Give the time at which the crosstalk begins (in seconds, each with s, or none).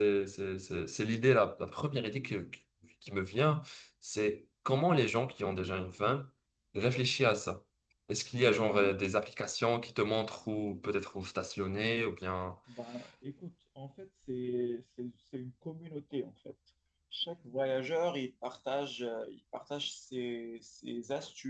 none